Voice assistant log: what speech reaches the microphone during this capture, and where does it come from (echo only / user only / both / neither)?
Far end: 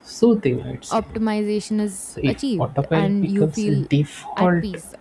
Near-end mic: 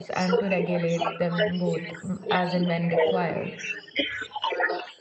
both